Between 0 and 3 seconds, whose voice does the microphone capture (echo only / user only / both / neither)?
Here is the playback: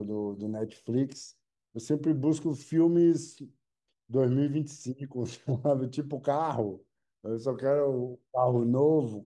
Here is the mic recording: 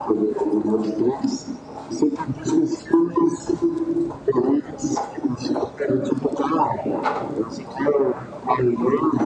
echo only